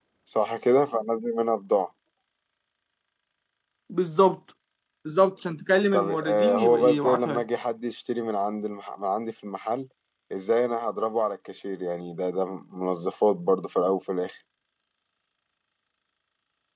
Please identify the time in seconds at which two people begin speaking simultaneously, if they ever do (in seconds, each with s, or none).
5.9 s